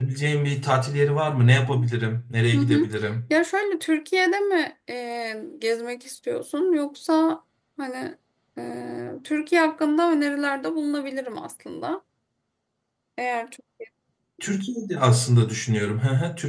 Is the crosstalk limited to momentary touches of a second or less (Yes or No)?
Yes